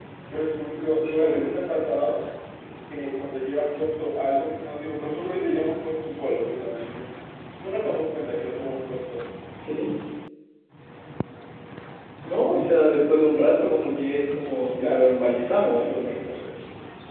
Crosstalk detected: Yes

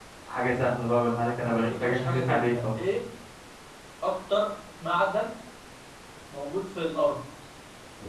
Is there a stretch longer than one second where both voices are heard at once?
Yes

